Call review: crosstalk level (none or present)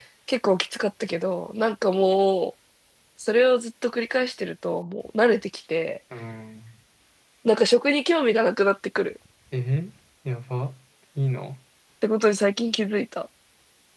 none